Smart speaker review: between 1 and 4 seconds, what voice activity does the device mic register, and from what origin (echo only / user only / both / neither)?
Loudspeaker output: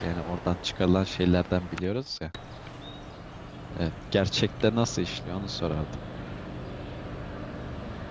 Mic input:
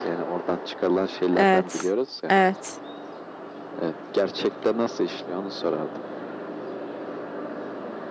both